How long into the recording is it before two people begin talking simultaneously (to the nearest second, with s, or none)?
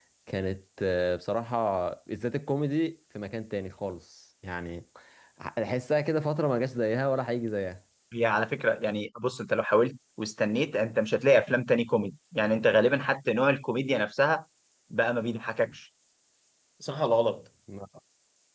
none